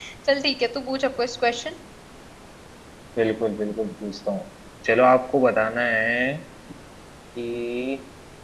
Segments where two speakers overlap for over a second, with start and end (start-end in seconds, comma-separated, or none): none